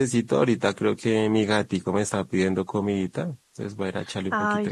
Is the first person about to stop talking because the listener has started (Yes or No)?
Yes